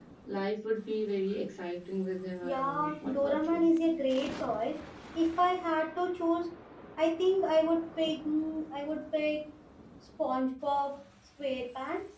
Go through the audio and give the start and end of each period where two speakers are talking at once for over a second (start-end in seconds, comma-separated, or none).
2.4-3.6